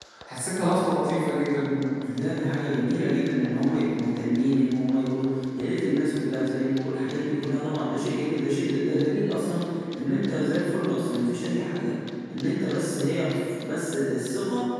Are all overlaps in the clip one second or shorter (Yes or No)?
Yes